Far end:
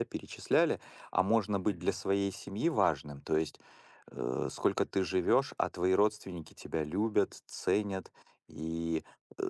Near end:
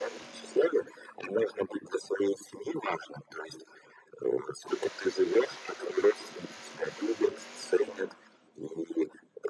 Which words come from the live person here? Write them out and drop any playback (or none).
none